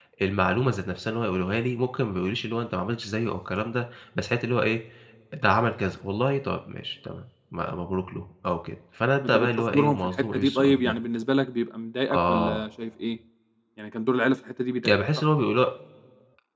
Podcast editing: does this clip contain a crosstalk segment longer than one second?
Yes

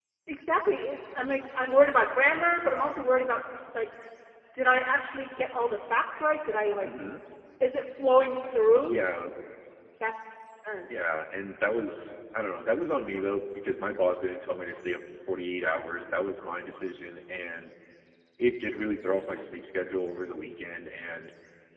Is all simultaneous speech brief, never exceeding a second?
Yes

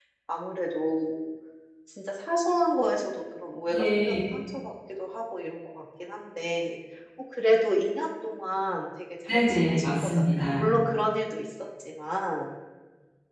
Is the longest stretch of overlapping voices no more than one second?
No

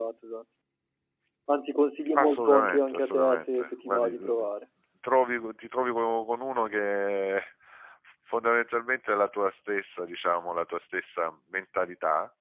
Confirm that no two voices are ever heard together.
No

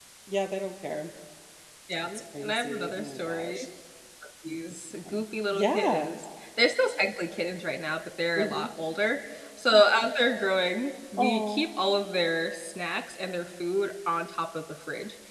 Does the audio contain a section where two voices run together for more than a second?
Yes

